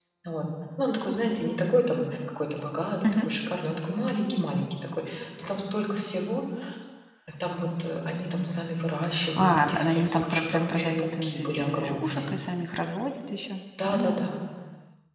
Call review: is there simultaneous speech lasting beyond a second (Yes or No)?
Yes